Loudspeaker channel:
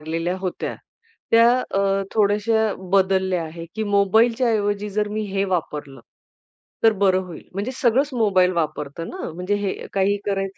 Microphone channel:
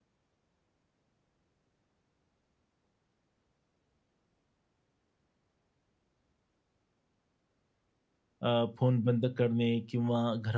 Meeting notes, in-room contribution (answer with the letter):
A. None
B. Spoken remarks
B